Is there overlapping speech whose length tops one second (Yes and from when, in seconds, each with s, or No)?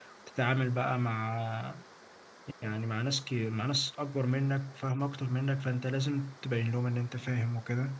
No